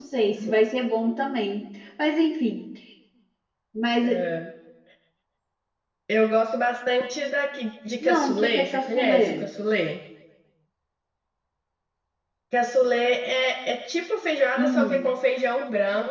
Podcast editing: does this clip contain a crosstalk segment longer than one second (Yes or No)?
Yes